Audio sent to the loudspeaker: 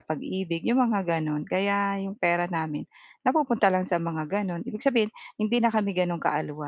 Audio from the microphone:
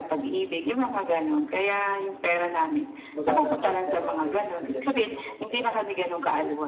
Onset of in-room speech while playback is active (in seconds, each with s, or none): 3.1 s